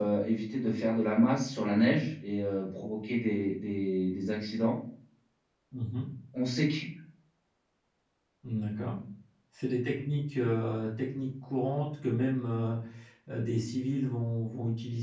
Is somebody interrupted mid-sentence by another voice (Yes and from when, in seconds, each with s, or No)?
No